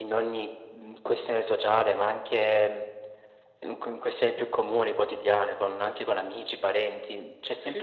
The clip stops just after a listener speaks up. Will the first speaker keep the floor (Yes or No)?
Yes